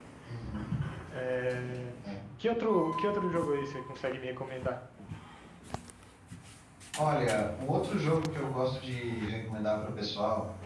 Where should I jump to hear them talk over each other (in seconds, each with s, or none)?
none